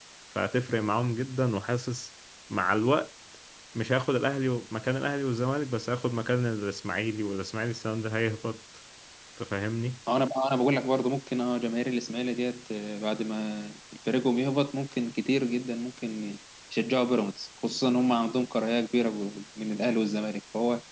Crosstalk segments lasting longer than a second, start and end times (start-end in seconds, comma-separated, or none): none